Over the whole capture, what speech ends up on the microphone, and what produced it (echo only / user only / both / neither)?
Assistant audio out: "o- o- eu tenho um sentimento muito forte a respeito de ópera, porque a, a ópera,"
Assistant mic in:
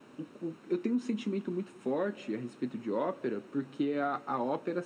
echo only